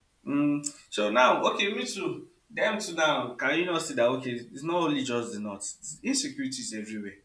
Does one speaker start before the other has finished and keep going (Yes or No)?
No